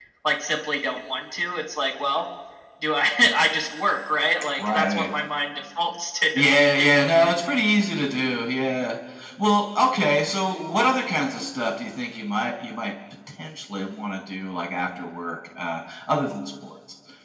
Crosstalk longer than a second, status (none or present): none